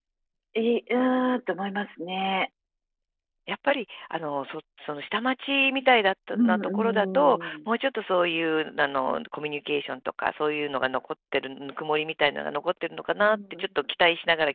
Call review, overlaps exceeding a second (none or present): present